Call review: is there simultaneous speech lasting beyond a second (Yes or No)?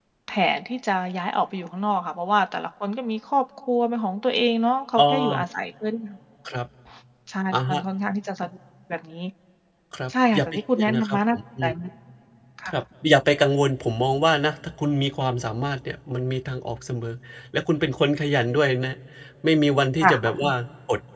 Yes